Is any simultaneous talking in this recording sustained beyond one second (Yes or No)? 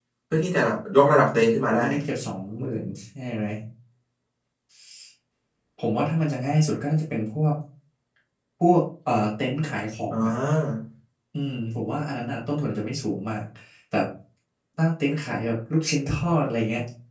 No